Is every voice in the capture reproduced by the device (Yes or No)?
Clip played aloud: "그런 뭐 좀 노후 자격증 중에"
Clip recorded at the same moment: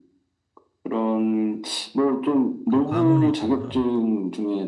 No